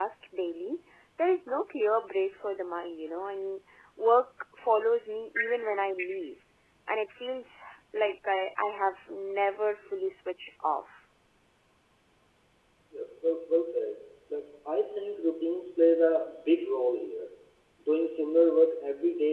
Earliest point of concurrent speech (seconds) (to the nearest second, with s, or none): none